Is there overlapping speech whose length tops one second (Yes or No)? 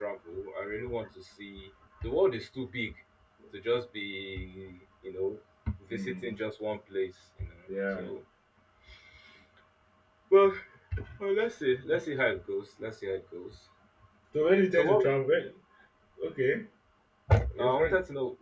No